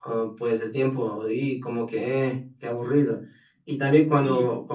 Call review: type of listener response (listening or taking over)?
listening